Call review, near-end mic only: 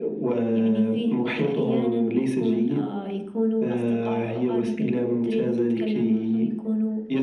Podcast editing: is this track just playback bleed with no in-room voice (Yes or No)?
Yes